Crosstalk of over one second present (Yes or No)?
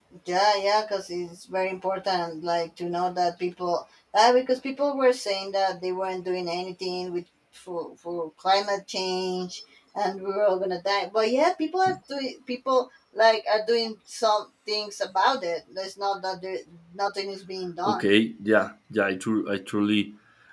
No